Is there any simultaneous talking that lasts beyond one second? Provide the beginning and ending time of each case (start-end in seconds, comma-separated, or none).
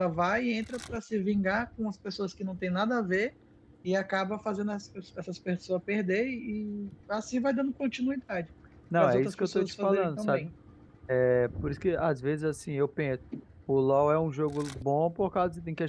9.0-10.5